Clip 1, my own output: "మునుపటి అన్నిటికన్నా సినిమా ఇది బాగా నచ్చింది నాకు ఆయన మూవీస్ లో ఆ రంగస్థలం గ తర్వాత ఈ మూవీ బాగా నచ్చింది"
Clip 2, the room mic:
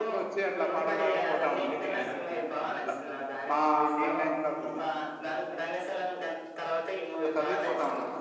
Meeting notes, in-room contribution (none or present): present